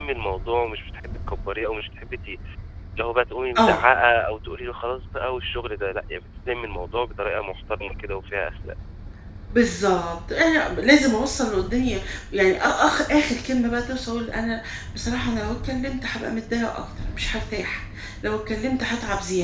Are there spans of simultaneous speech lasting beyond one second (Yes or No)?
No